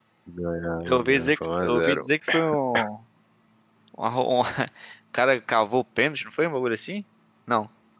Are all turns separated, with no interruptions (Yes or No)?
No